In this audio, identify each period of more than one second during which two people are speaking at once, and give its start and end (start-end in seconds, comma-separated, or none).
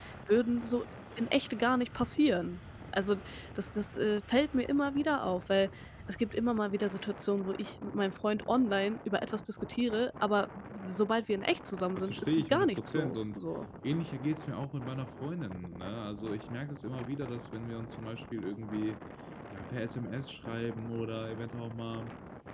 11.9-13.4